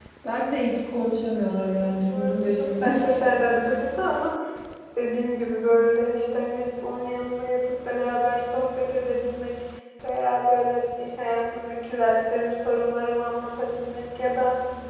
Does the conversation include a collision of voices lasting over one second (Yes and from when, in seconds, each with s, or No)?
Yes, from 1.6 s